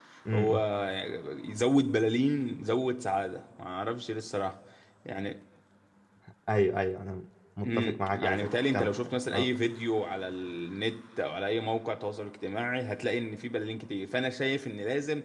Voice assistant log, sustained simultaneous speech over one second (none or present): present